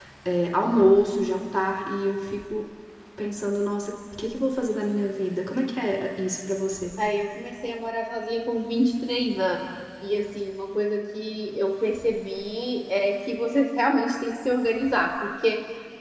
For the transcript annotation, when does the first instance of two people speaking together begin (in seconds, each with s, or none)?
none